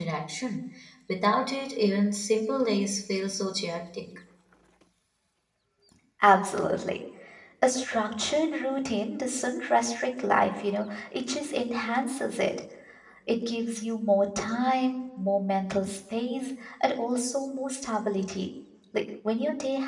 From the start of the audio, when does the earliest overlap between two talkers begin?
none

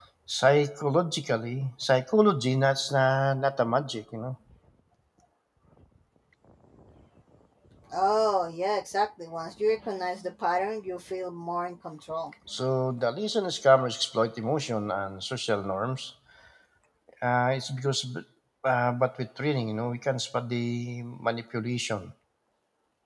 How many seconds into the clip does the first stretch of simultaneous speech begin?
none

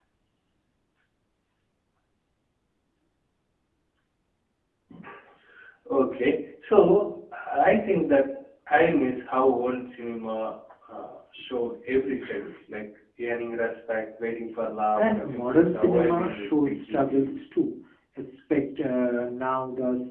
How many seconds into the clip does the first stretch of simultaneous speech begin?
15 s

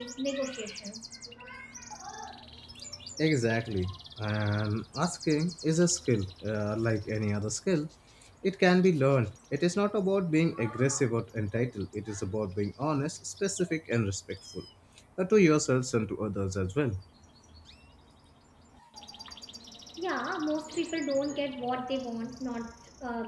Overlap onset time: none

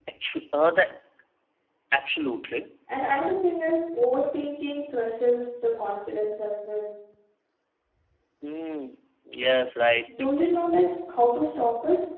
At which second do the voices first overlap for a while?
none

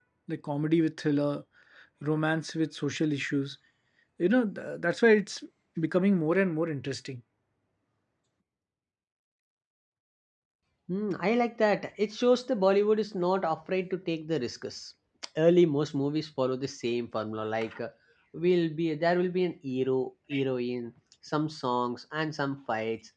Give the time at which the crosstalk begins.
none

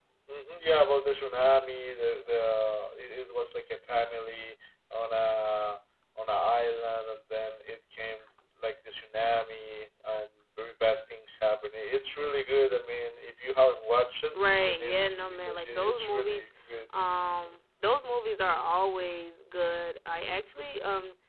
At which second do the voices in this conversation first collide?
14 s

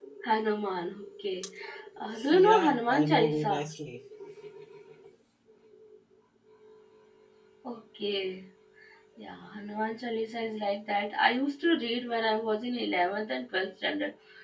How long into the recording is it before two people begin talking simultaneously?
2 s

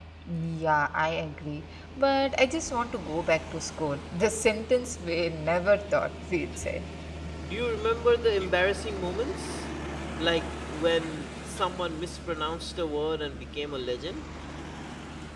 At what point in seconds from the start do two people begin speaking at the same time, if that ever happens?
none

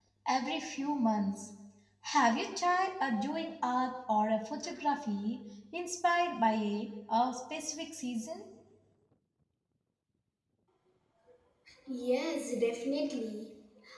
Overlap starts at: none

